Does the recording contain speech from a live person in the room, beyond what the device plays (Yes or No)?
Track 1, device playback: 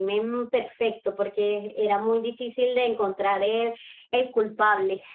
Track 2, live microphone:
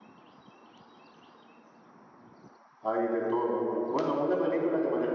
Yes